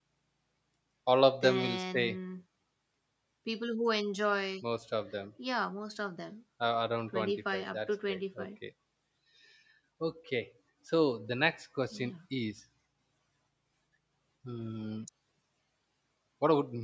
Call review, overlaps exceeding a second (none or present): present